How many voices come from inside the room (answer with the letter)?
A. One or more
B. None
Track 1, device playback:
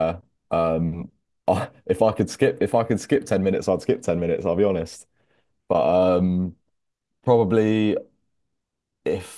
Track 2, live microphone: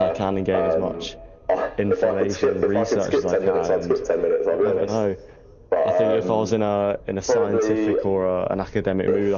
A